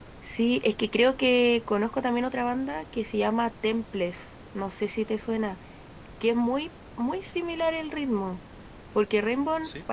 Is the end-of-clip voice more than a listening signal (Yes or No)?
No